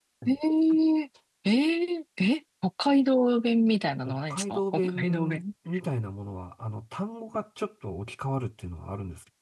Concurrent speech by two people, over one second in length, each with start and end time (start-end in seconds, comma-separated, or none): 4.0-5.4